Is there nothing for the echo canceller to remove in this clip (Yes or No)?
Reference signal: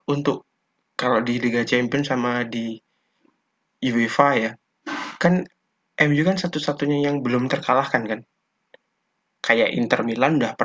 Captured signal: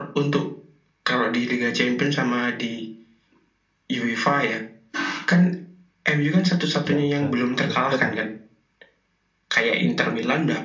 No